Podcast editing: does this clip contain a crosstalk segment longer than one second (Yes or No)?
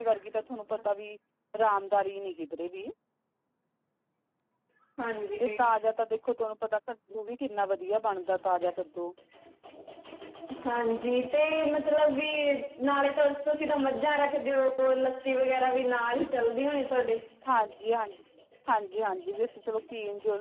No